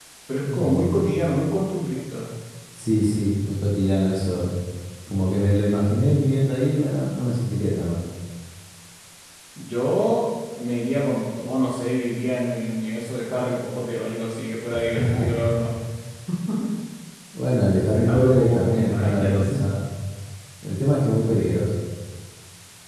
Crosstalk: present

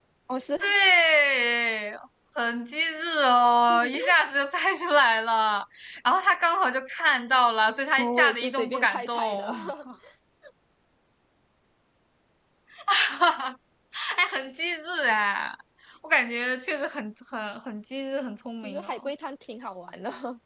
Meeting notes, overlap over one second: present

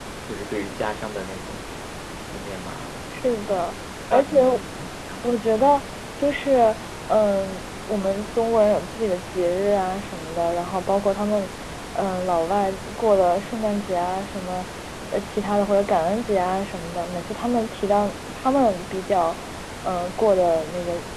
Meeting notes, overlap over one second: none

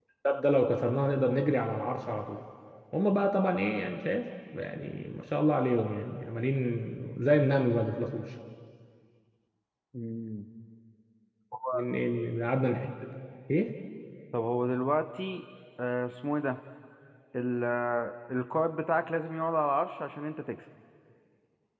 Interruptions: none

